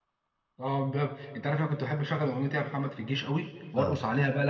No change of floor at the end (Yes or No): Yes